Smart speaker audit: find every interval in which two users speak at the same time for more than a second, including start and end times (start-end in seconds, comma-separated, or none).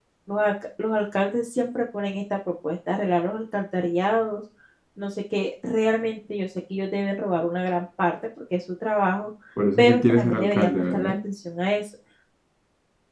9.8-11.2